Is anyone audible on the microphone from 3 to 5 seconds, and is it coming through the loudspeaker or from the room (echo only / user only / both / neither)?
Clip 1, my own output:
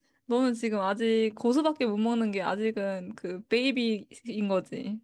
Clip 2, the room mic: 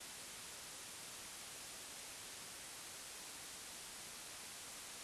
neither